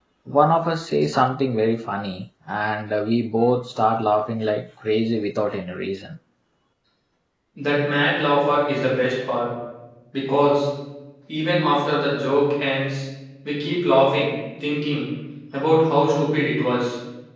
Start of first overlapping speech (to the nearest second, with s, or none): none